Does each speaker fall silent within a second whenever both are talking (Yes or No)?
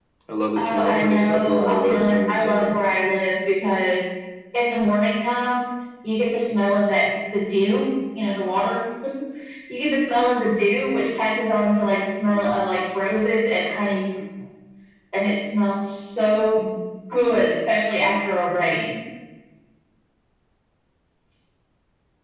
No